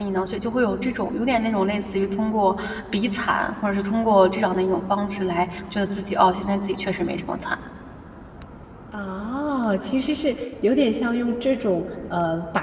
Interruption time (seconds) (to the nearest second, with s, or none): none